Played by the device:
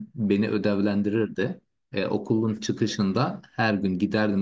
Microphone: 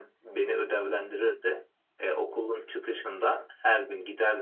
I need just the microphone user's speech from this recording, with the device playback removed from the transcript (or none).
none